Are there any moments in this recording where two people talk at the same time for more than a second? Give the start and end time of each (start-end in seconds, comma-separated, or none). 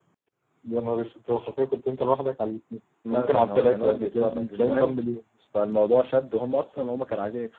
3.1-5.0